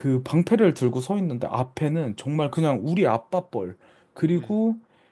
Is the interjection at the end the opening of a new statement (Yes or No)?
No